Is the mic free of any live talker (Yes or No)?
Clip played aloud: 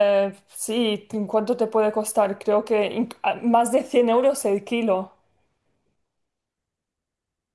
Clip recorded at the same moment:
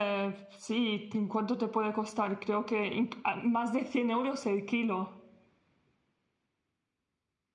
Yes